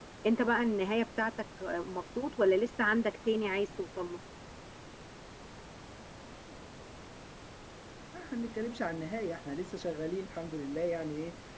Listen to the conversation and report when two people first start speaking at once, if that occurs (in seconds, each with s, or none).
none